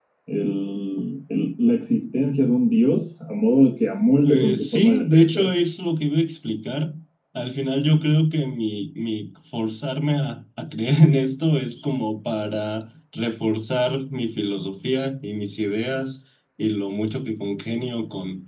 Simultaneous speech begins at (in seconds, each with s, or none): 4.2 s